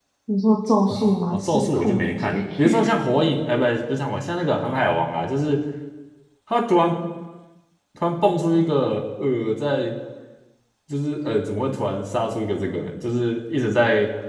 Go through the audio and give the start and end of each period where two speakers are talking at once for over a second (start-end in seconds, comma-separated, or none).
1.3-2.7